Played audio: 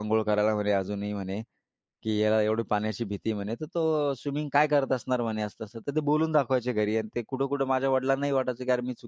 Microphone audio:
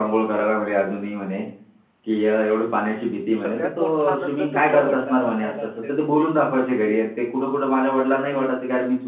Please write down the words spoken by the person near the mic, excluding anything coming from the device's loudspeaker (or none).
सगळ्यात मोठा आनंद तुमच्या वडिलांनाच झाला असेल.